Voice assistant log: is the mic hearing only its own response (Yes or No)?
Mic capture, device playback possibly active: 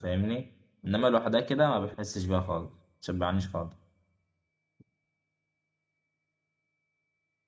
No